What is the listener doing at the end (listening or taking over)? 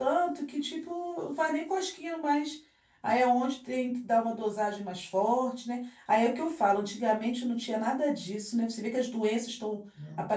listening